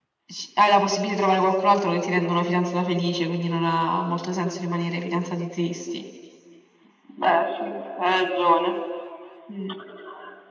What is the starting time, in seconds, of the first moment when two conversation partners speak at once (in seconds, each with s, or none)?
none